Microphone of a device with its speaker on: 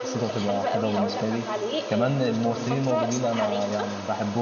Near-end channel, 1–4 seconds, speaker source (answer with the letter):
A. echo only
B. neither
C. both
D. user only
C